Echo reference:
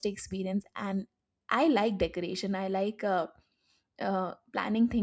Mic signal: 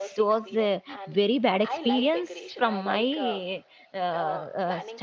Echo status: present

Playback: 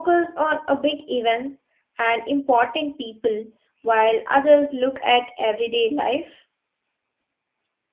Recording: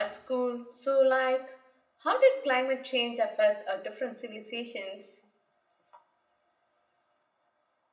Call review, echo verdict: none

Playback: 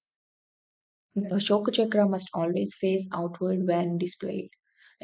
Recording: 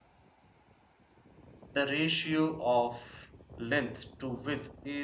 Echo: none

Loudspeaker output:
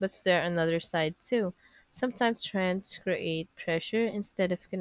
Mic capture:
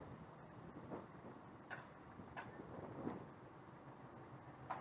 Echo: none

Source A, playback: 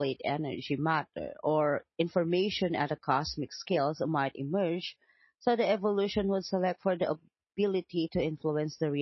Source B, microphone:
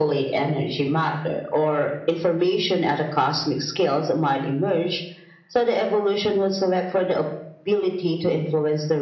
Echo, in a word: present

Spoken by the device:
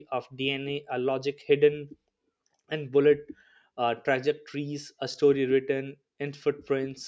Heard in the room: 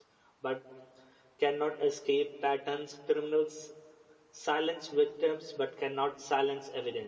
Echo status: none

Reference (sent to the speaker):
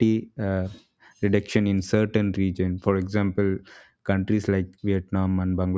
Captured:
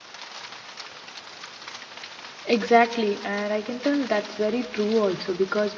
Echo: none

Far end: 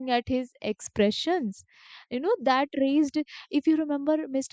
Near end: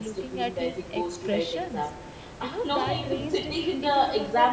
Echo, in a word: present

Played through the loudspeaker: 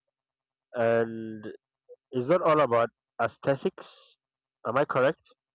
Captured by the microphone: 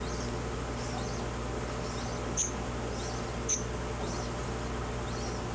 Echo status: none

